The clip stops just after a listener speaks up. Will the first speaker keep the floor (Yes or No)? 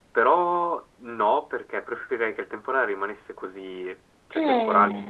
Yes